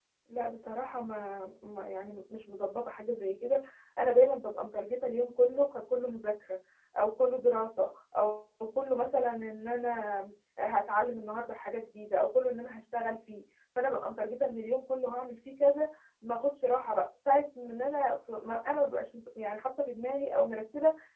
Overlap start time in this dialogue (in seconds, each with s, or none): none